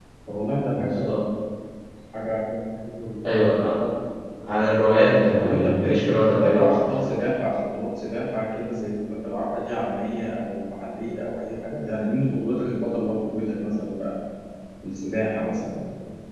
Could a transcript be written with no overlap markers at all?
No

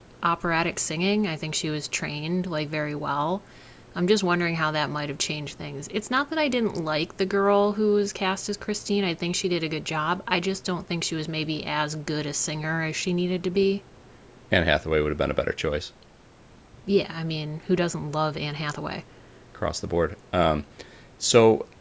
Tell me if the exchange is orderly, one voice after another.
Yes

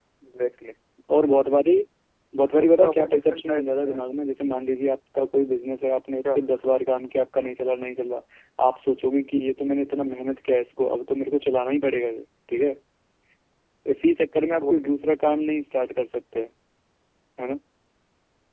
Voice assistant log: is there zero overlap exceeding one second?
No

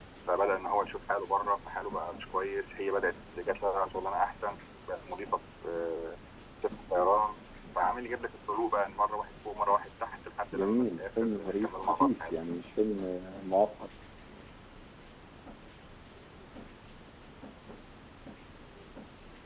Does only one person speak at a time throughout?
No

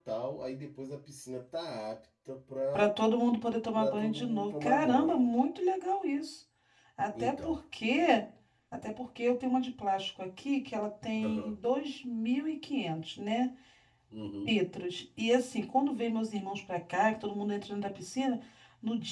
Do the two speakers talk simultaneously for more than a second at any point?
Yes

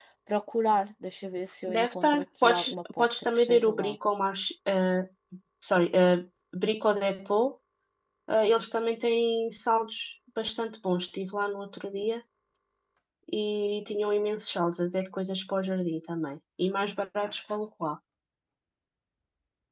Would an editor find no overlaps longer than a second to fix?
No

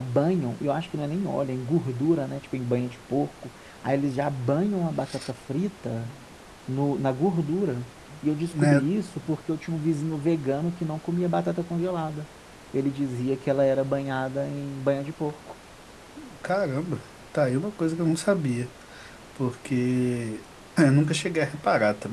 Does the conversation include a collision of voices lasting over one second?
No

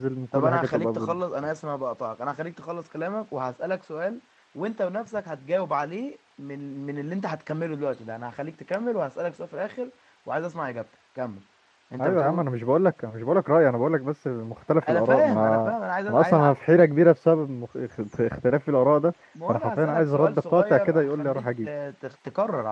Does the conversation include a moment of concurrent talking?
Yes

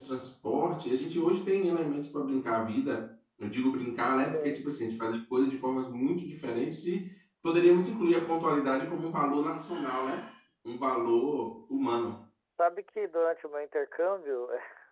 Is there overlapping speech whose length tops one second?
No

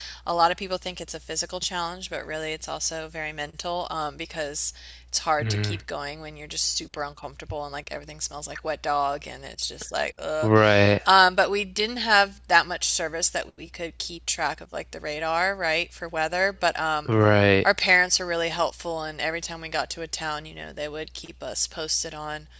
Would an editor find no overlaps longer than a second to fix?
Yes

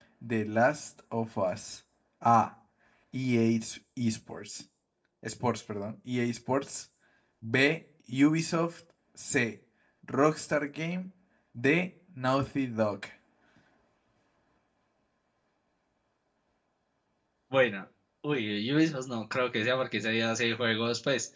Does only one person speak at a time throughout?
Yes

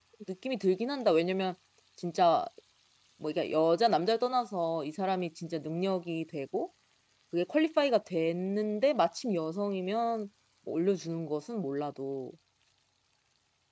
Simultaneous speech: No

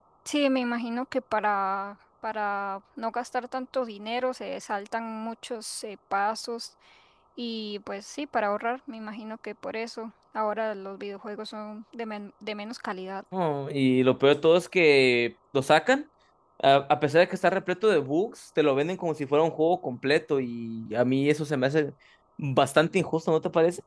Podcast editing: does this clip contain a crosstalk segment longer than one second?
No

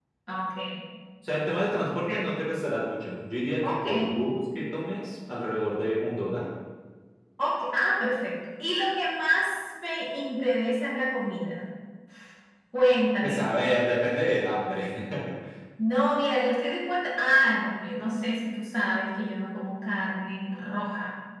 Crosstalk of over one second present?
No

